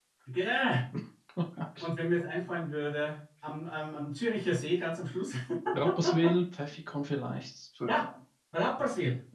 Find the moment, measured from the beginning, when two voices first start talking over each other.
none

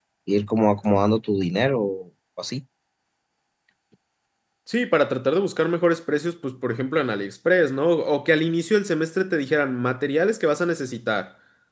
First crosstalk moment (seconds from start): none

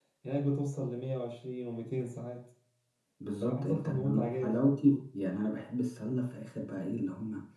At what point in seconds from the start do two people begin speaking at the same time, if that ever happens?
3 s

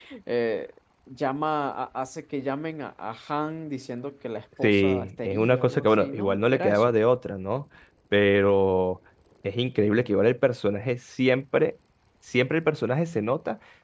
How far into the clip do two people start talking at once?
5 s

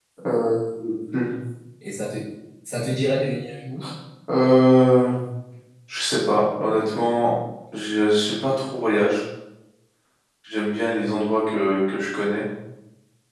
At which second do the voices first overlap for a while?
none

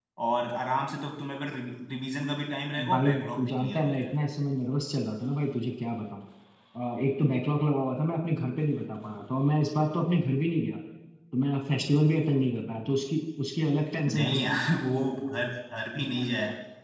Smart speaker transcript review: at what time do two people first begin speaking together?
3 s

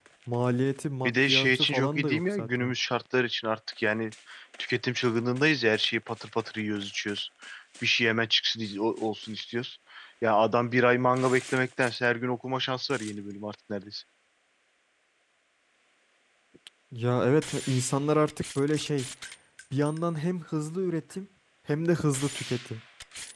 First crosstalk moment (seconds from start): 1 s

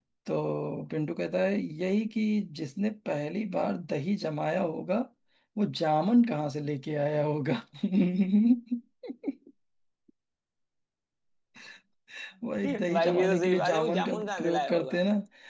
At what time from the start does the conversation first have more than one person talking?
13 s

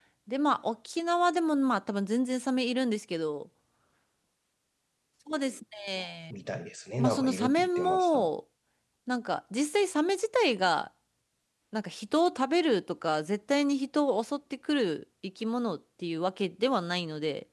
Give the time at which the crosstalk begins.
7 s

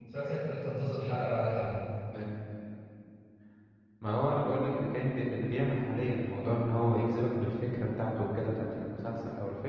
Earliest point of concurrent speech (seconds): none

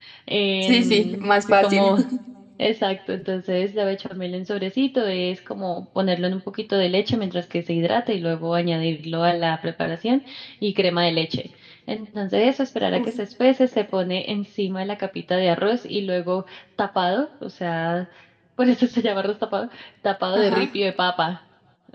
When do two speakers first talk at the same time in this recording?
1 s

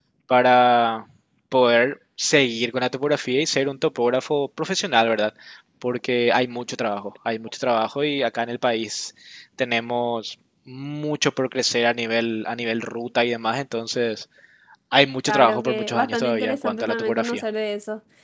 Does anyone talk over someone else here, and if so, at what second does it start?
15 s

